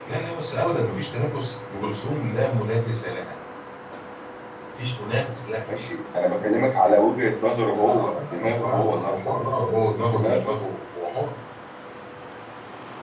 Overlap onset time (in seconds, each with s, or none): 7.8 s